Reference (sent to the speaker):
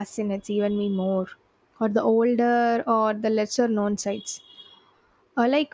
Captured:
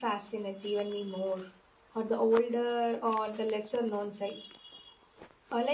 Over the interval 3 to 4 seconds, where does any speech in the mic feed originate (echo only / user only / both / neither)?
echo only